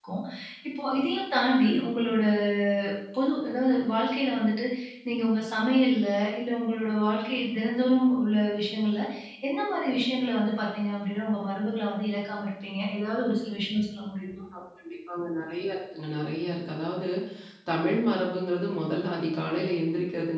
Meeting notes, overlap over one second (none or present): none